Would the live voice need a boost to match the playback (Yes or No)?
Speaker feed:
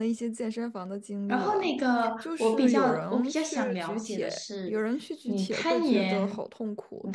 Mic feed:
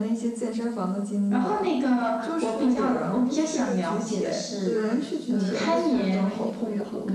Yes